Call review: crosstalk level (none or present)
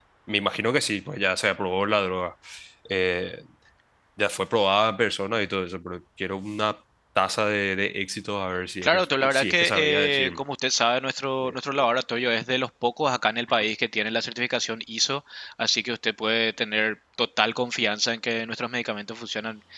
present